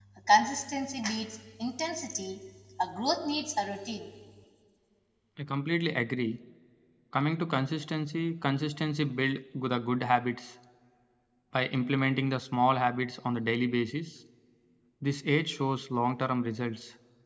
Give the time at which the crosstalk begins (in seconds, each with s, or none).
none